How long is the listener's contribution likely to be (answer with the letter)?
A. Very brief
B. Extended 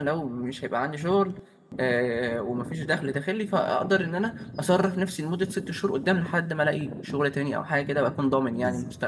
B